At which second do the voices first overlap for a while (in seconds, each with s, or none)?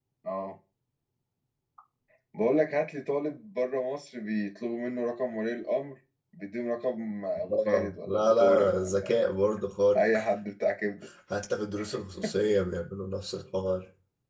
7.5 s